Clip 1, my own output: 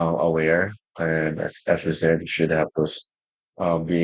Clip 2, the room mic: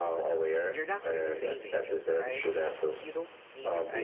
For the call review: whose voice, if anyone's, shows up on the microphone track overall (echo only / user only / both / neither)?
both